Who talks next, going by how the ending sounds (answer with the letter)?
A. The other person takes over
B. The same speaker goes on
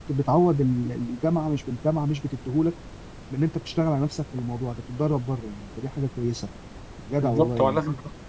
A